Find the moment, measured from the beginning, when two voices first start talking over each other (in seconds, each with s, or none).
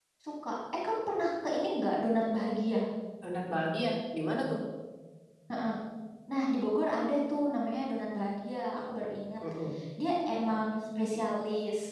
none